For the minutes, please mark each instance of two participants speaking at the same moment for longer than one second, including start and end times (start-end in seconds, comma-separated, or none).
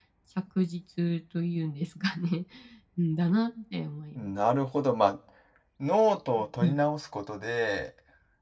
none